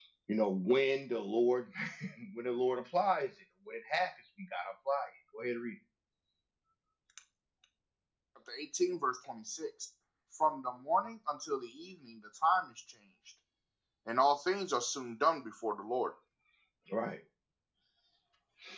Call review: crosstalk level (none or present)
none